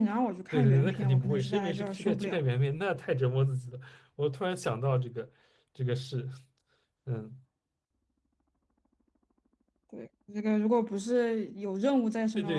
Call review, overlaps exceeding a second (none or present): present